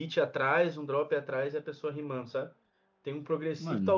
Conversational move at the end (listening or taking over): listening